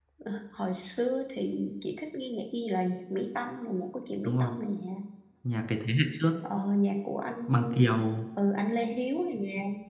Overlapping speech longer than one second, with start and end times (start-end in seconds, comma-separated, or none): none